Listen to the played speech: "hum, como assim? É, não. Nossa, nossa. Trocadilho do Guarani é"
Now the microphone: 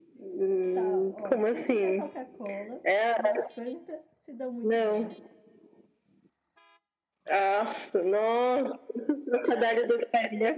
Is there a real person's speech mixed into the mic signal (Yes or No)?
Yes